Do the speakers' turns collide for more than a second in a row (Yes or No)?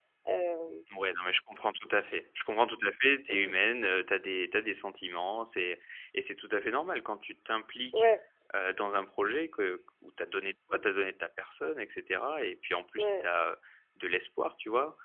No